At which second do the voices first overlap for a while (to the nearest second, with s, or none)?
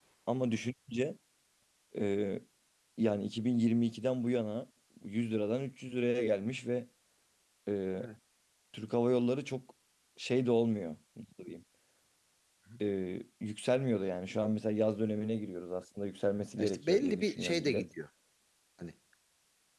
17 s